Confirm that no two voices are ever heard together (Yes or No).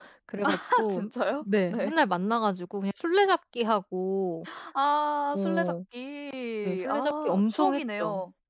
No